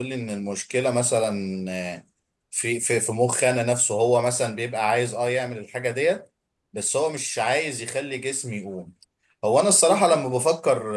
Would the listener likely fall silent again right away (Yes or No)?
Yes